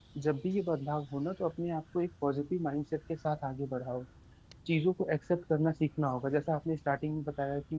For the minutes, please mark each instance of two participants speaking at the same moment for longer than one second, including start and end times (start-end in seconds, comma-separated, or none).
none